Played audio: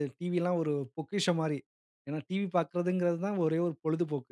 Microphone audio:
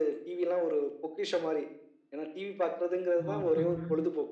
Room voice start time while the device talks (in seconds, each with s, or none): 3.2 s